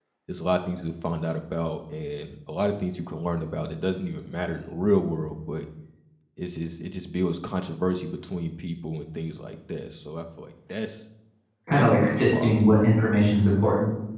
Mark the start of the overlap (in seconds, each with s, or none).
11.7 s